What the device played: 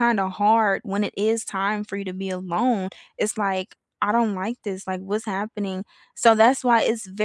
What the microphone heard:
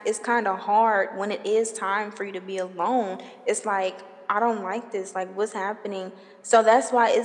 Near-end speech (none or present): none